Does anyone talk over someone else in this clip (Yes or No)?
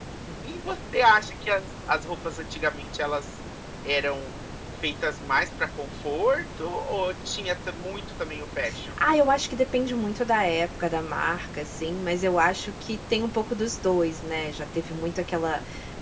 No